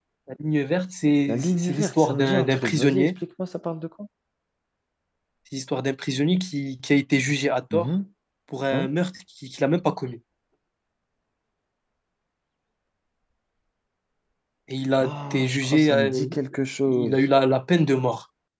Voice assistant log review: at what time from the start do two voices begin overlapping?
1.3 s

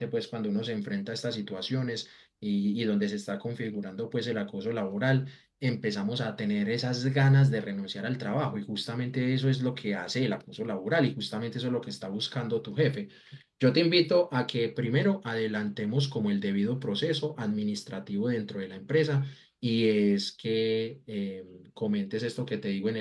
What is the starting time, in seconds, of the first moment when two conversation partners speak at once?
none

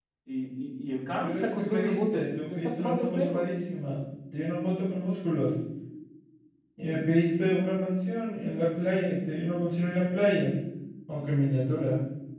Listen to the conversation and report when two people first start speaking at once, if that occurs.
1.2 s

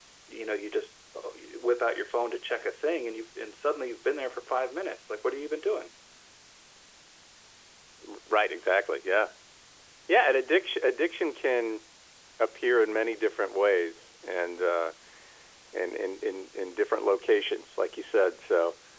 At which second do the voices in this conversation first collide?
none

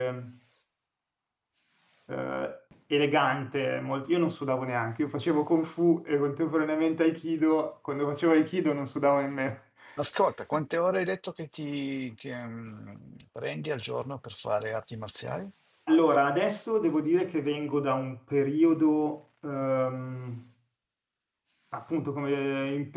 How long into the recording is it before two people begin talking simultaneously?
none

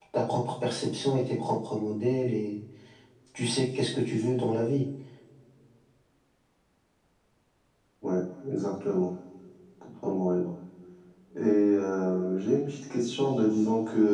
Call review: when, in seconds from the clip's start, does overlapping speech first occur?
none

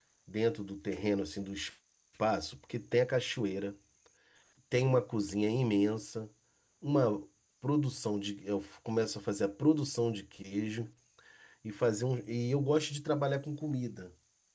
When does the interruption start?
none

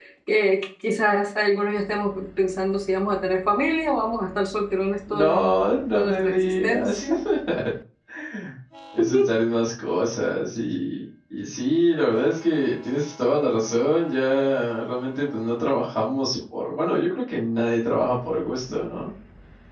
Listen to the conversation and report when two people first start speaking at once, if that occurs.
5.1 s

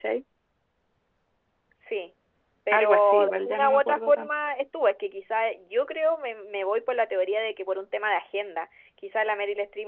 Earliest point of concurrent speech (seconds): 2.7 s

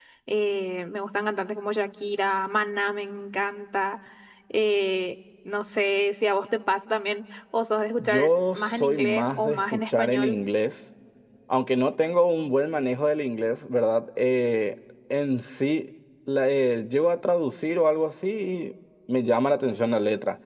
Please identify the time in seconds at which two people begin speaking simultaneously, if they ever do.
8.0 s

